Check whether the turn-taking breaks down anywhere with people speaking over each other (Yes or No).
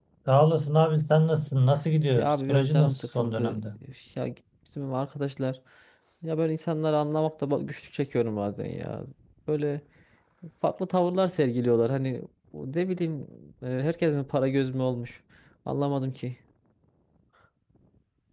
Yes